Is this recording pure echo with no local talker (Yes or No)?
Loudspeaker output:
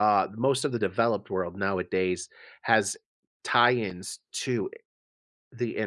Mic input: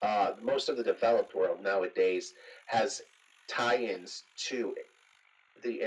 Yes